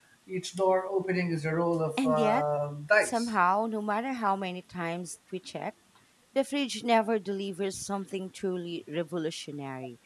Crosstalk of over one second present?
No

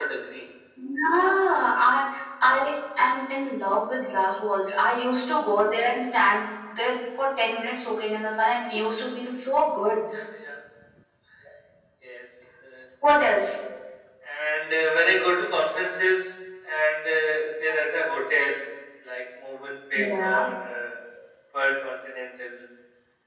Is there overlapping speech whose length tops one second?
No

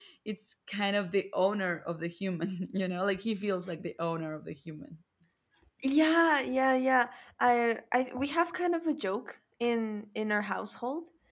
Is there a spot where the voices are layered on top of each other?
No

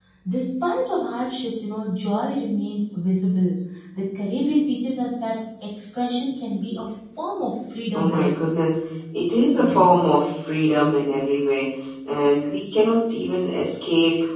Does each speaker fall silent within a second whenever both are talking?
Yes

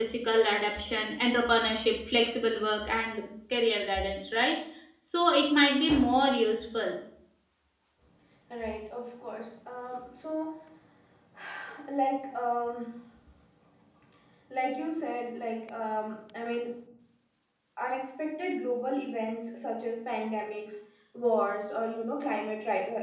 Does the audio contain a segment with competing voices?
No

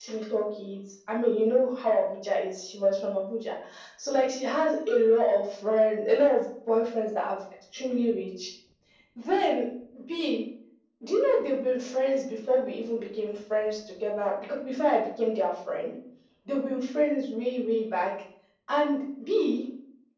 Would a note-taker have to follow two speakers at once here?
No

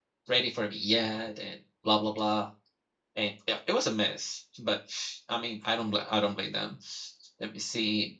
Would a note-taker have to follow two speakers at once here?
No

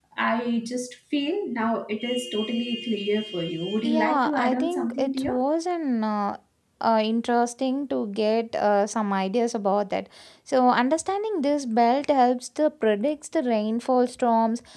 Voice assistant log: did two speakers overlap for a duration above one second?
Yes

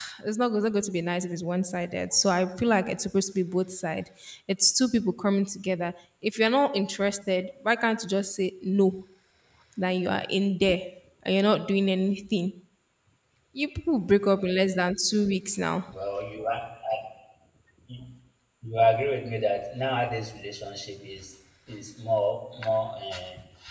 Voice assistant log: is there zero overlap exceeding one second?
Yes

